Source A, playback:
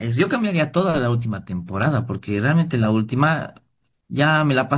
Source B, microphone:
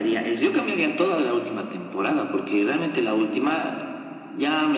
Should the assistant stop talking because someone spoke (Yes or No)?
No